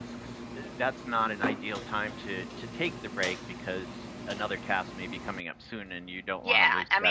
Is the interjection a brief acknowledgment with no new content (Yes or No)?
No